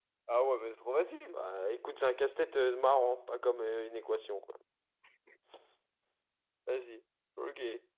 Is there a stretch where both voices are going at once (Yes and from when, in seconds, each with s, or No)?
No